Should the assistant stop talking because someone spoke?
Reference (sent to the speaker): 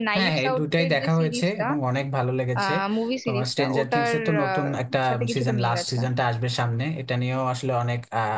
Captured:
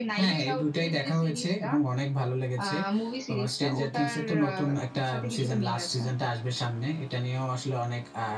No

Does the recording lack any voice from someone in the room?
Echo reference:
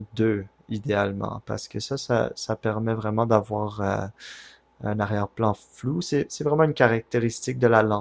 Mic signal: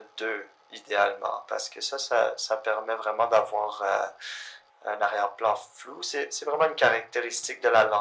Yes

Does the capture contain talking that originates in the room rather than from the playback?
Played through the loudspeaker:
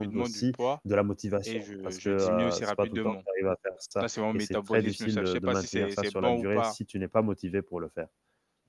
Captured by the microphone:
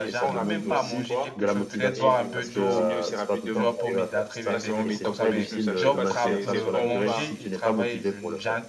Yes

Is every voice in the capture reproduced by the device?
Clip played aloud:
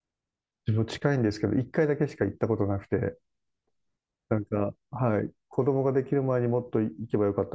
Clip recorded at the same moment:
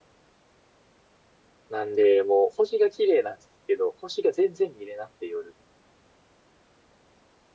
No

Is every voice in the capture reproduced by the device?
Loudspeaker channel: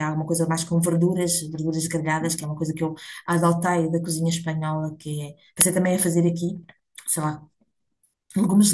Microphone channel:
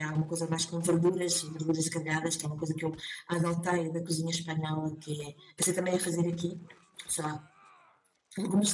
Yes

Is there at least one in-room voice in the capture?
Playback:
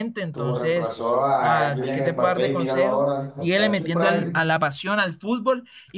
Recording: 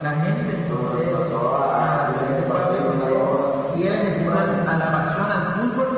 No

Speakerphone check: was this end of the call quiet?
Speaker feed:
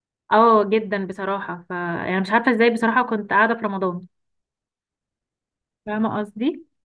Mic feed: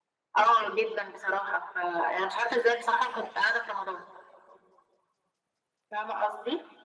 Yes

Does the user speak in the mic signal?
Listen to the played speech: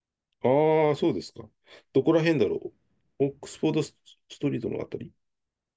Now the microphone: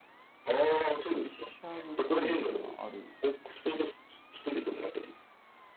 Yes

